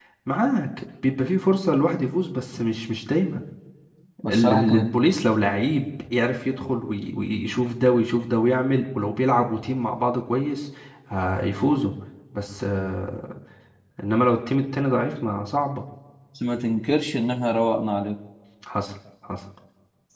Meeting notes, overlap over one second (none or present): none